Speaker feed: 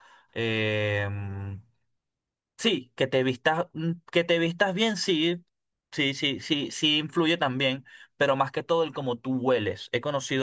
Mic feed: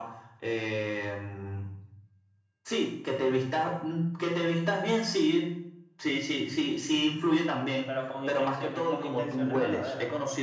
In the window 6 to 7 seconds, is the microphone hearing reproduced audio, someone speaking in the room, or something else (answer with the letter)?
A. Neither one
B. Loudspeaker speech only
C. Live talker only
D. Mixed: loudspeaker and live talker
B